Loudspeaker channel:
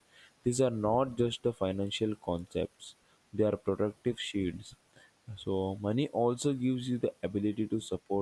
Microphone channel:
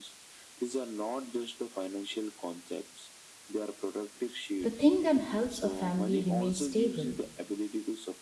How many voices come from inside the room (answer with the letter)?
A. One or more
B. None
A